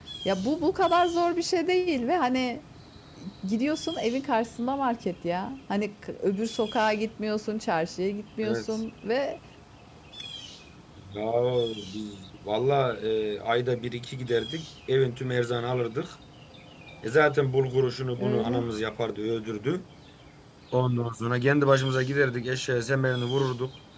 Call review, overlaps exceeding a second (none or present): none